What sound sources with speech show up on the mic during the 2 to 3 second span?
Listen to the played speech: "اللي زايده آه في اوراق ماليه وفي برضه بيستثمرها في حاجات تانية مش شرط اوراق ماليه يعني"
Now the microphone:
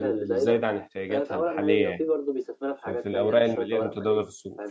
both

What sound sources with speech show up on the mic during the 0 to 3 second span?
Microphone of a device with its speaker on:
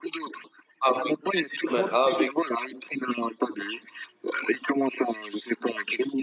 both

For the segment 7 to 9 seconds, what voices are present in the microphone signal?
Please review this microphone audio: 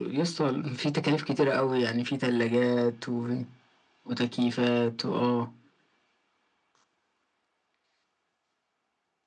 neither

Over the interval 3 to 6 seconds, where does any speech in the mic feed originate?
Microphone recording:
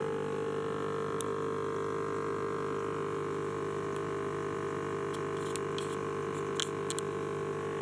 neither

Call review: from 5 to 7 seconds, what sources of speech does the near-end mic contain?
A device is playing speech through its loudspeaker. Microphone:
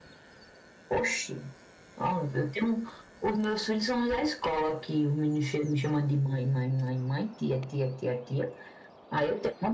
echo only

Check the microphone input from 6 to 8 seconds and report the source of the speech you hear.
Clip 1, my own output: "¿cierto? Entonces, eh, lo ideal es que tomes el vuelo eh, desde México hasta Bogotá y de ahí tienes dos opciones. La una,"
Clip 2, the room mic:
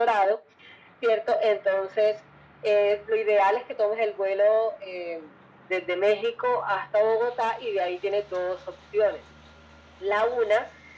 echo only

